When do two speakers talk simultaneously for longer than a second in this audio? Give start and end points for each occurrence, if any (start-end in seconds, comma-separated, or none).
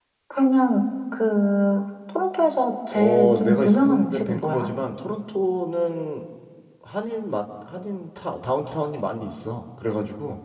2.9-4.7